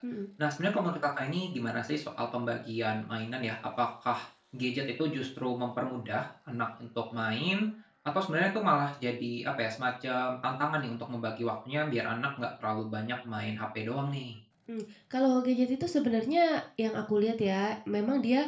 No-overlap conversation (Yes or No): Yes